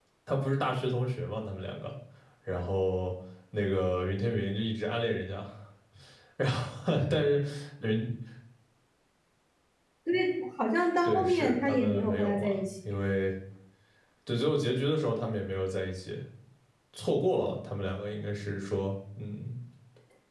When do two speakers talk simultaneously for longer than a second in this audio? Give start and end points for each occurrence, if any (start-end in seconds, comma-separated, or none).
11.0-12.6